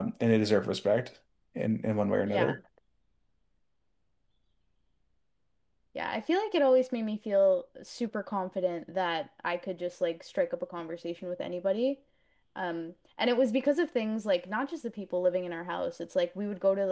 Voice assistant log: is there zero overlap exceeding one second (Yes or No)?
Yes